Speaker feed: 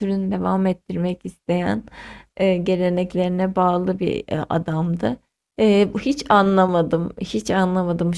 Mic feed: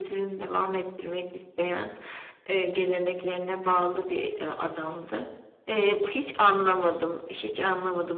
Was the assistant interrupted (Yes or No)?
No